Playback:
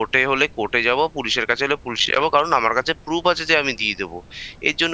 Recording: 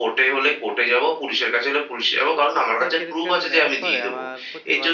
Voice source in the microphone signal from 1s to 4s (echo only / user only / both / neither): both